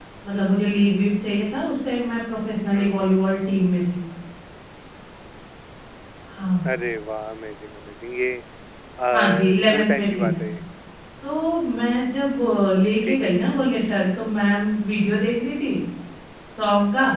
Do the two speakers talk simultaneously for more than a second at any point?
Yes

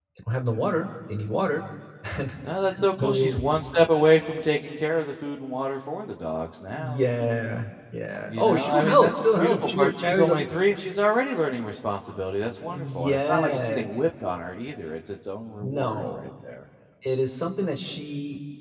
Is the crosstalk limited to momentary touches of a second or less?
No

